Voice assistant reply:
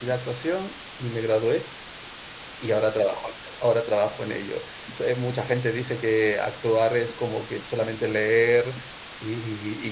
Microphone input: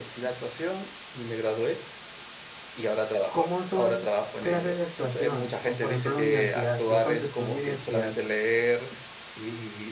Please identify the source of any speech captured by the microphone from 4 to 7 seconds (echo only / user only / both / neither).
both